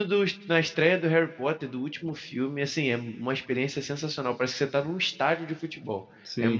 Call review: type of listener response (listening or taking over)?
taking over